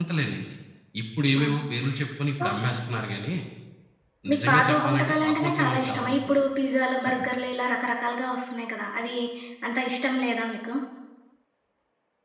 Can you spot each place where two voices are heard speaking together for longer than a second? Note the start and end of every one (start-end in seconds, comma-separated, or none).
4.3-6.4